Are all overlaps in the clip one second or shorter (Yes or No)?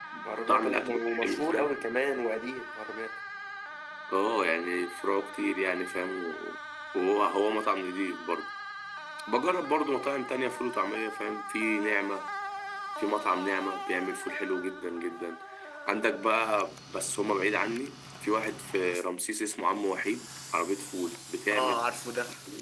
No